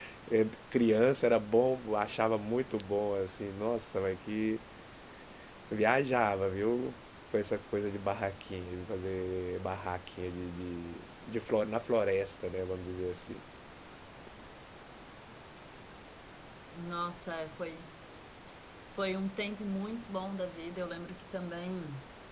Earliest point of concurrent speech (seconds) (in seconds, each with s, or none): none